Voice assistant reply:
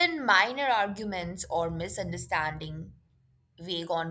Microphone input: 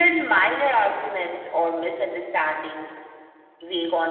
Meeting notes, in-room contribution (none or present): none